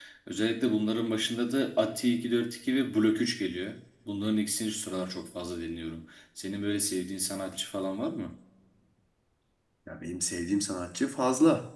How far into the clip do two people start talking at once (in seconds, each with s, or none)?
none